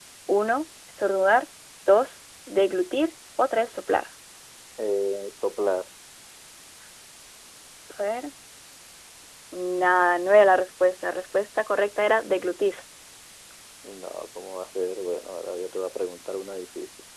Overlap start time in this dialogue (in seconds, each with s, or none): none